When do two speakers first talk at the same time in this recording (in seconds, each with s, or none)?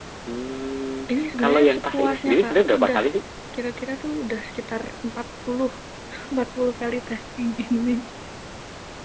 1.4 s